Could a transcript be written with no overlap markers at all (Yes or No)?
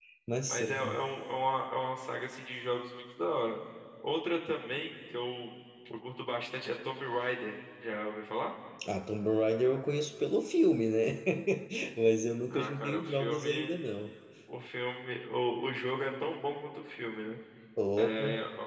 No